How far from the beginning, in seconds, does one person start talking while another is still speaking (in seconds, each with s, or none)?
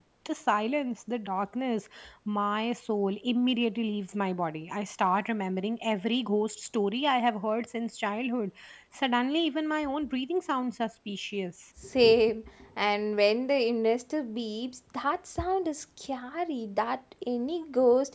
none